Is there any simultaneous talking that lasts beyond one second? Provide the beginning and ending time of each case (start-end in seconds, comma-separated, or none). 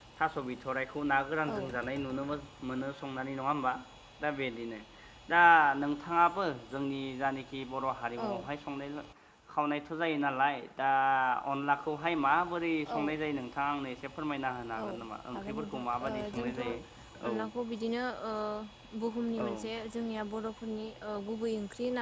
15.3-16.6